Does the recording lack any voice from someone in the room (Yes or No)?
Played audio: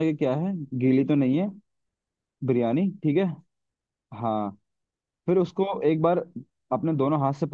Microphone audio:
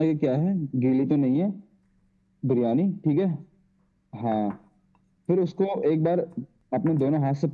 Yes